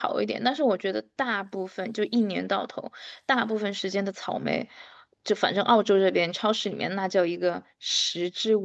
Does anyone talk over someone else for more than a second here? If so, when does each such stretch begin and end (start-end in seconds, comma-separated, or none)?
none